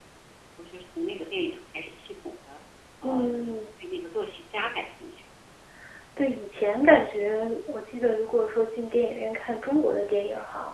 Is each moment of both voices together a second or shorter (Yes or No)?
Yes